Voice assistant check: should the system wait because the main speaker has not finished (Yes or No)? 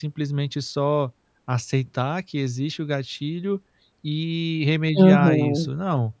Yes